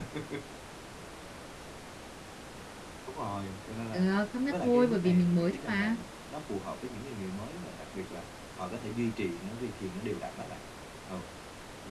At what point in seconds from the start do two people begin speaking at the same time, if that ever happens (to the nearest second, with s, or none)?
4 s